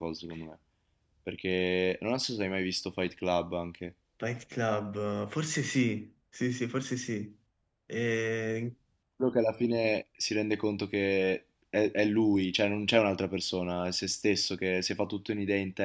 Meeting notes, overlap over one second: none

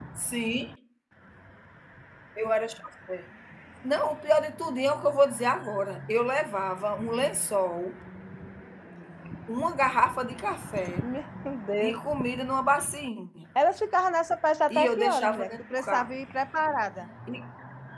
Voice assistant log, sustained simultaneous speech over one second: present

